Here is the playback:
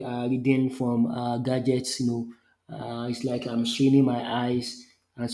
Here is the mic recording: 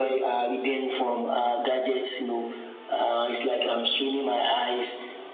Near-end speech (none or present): none